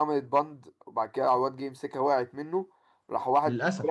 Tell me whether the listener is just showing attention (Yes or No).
Yes